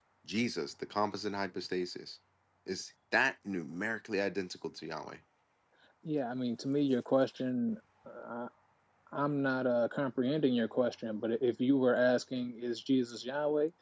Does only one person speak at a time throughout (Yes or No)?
Yes